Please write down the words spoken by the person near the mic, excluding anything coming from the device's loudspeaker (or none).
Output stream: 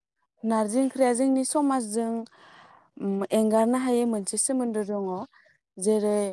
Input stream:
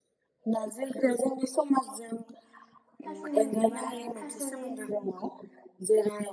थास'नि बिबार थास'नि